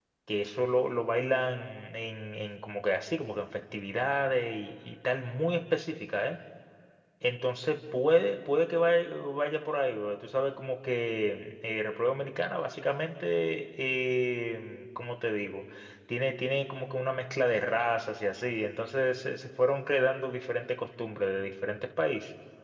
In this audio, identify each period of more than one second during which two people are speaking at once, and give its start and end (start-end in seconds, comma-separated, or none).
none